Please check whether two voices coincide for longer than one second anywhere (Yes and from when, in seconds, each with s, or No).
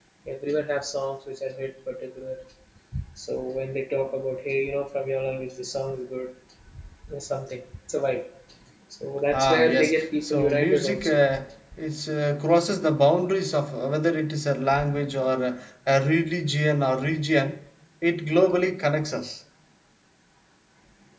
Yes, from 9.3 s